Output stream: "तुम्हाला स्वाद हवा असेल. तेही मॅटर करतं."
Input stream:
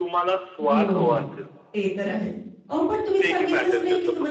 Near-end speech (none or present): present